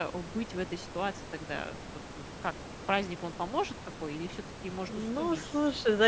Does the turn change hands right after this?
Yes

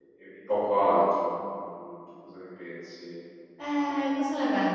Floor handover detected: Yes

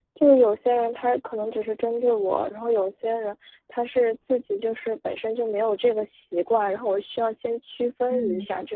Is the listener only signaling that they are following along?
No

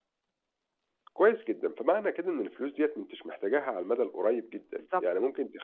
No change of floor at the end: Yes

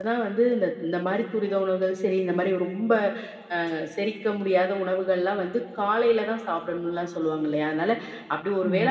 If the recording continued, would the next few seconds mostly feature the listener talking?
No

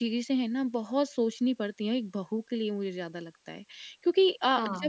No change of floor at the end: Yes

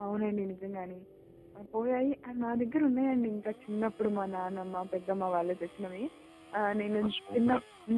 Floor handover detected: No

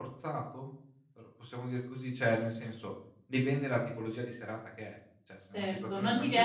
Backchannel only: No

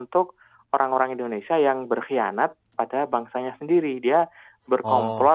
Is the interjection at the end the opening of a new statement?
No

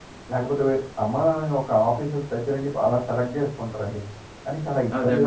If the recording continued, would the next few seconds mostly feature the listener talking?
Yes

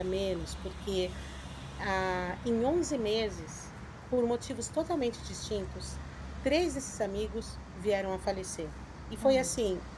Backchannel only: Yes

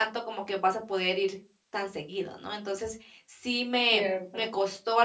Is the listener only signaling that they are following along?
Yes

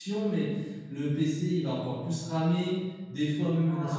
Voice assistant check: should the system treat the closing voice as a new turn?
No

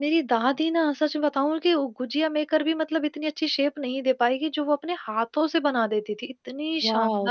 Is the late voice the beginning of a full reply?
Yes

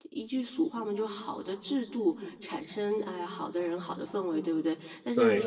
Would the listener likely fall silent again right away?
Yes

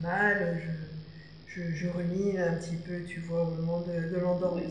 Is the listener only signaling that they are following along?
Yes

